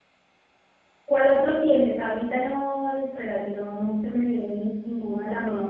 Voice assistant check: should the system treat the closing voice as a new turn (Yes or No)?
Yes